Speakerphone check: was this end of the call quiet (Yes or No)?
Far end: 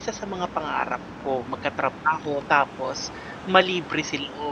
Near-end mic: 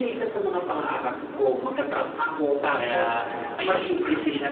No